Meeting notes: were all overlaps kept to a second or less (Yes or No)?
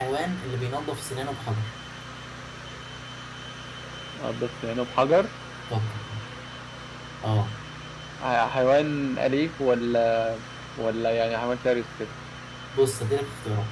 Yes